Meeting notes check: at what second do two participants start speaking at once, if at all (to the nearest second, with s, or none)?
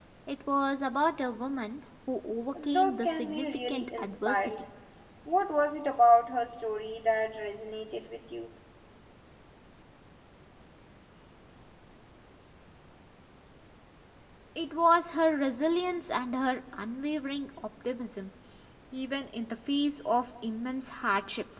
3 s